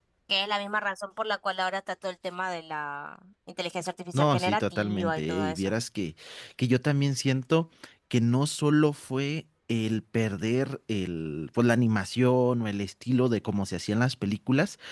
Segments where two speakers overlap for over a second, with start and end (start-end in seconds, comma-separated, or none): 4.1-5.7